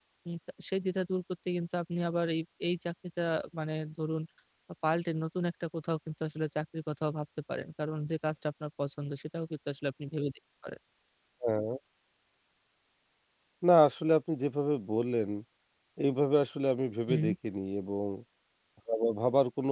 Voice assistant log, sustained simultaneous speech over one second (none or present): none